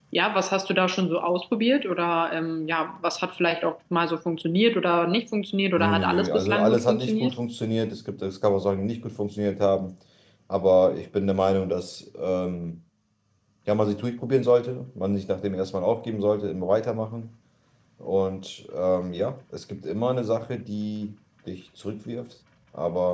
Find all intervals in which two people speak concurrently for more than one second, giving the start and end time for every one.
5.8-7.3

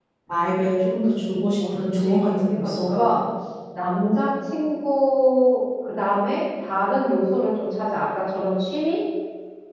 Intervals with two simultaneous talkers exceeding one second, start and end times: 1.7-3.0

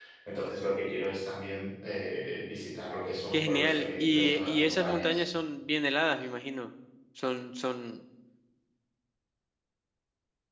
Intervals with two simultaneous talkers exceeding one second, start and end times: 3.3-5.2

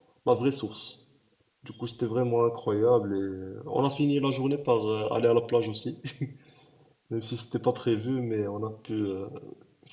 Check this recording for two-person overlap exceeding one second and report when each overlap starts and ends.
none

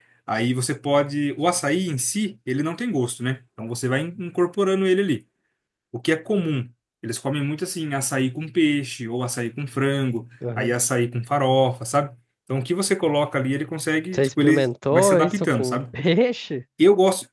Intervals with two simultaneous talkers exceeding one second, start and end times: 14.1-15.8

